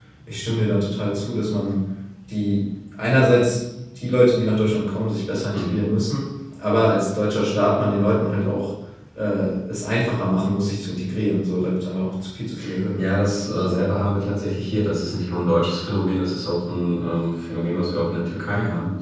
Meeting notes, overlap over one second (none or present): none